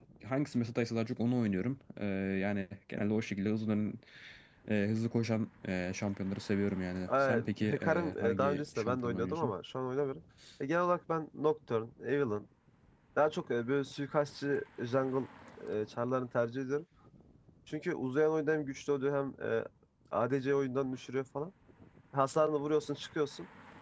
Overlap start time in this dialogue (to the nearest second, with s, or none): 7 s